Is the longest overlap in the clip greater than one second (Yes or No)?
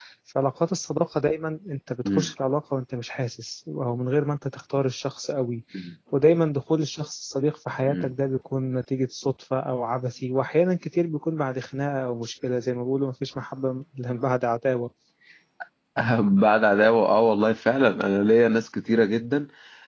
No